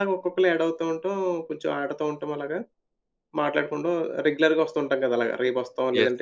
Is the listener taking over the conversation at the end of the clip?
Yes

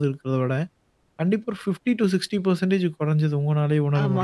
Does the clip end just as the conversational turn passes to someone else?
Yes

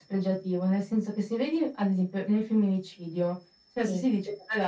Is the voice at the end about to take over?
No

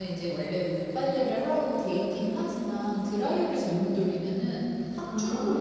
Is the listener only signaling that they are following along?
Yes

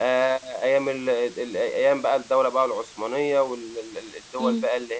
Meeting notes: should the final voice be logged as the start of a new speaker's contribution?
No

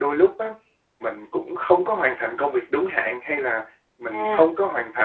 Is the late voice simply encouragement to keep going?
Yes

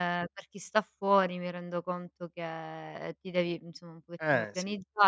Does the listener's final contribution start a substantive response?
No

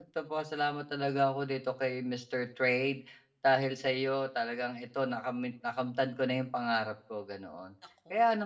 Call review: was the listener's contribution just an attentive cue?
Yes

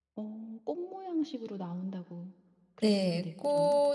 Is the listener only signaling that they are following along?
No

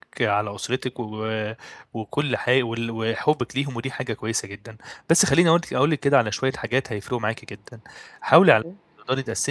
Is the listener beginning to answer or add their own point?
No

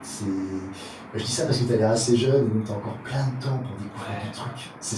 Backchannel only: No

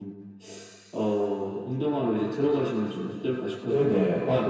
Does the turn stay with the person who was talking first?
No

